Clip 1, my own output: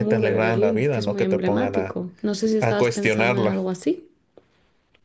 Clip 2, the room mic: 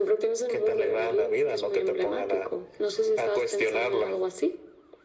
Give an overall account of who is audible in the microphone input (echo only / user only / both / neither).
echo only